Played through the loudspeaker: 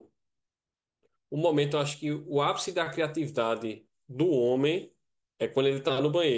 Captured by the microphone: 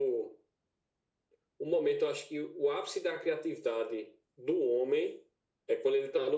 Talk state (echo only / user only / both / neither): echo only